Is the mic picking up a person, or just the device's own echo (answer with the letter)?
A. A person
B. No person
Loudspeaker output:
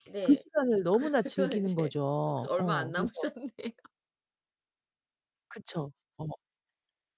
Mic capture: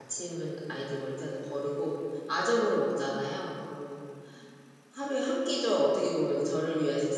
A